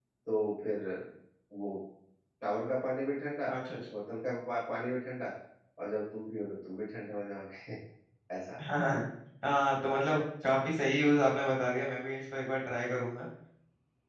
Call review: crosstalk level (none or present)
none